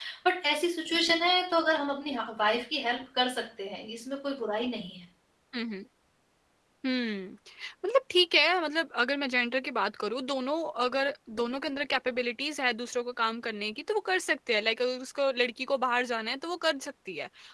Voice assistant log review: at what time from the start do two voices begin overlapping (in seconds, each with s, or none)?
none